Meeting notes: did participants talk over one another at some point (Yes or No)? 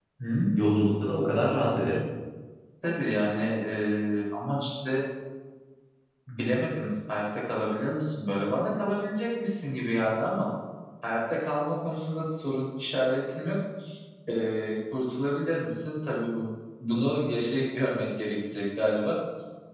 No